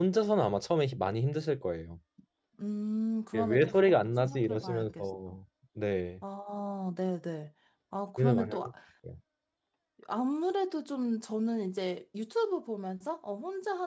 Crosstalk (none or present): present